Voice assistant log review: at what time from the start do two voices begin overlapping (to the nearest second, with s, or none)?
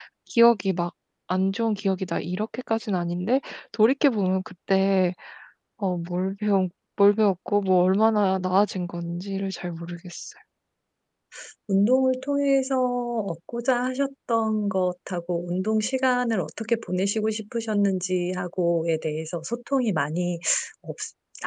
none